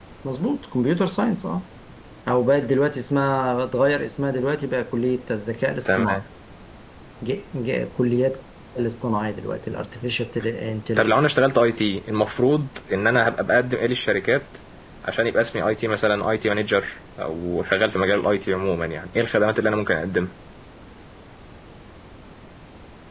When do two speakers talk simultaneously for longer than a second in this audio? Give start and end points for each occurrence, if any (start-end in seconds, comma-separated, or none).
none